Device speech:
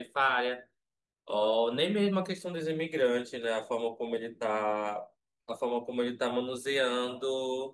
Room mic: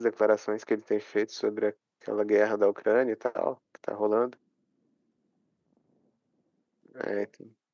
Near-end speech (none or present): present